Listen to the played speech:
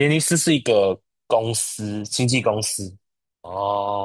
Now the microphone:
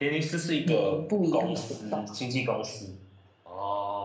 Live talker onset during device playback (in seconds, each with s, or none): 0.6 s